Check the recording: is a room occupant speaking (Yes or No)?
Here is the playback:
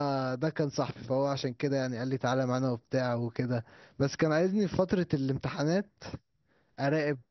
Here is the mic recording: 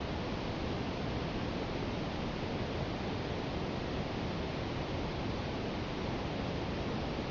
No